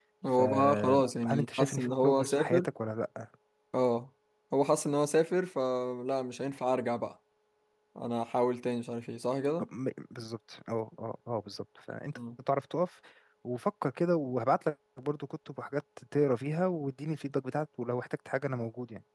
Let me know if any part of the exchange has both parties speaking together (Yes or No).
Yes